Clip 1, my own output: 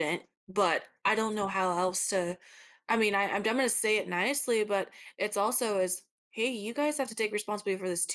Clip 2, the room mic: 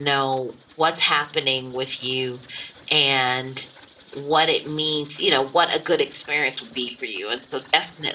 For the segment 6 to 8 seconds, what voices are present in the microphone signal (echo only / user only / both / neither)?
user only